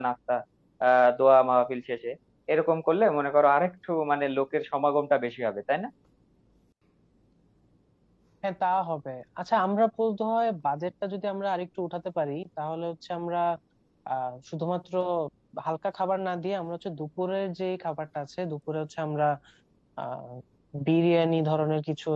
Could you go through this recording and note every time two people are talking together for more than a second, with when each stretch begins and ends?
none

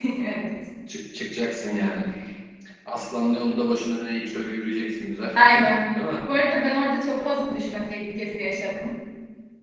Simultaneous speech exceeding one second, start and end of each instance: none

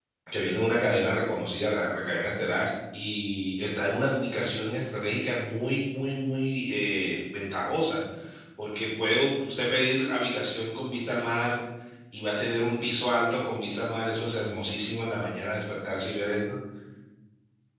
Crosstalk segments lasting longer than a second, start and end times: none

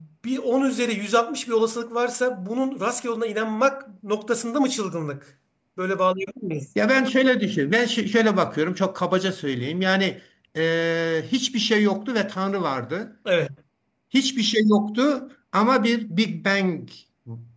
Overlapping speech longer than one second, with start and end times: none

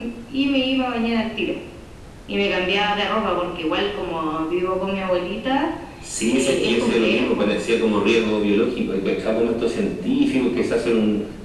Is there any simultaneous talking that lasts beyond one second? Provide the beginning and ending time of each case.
6.2-7.6

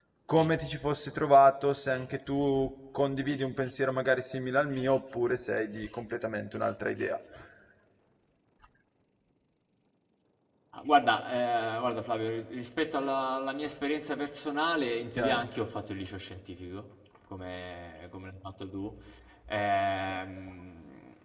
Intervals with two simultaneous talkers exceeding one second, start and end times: none

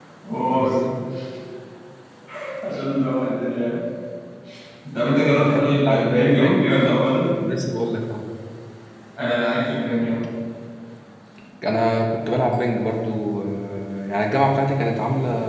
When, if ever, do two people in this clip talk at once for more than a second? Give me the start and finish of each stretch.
5.4-6.7

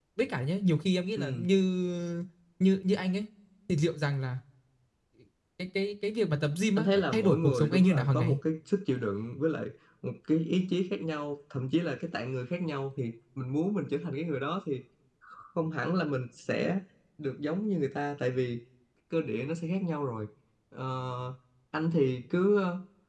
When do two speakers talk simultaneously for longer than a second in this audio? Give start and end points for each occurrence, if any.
6.8-8.4

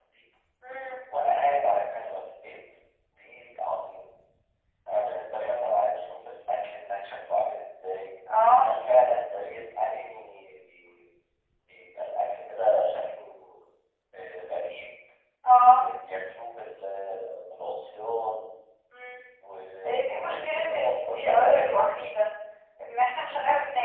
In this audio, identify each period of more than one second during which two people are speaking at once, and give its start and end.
19.9-21.8

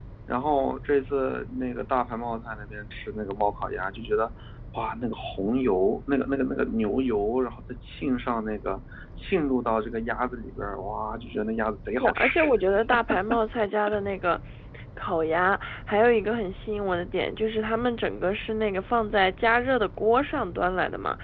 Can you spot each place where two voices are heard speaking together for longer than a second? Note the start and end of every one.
none

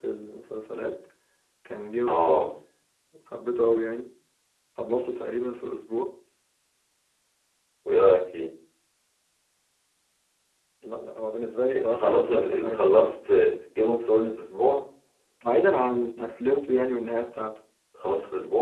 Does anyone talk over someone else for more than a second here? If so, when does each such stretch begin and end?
11.8-13.1

